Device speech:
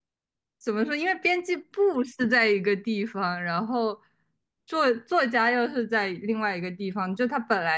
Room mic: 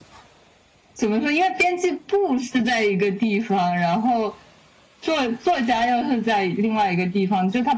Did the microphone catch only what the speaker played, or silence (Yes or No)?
Yes